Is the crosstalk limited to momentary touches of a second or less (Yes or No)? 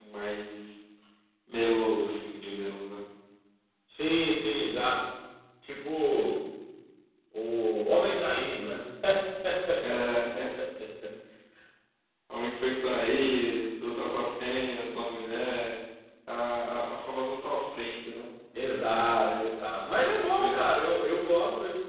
Yes